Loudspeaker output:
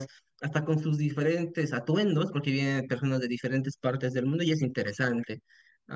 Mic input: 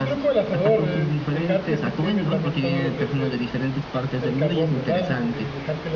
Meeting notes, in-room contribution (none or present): present